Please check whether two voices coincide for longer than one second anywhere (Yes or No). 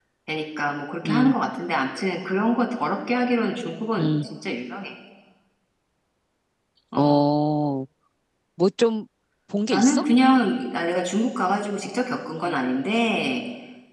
No